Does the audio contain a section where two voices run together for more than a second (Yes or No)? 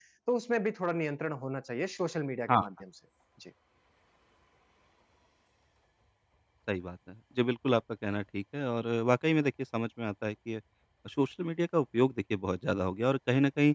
No